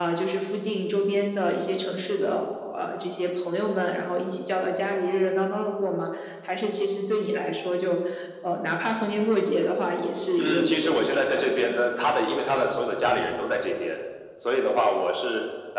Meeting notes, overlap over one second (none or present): present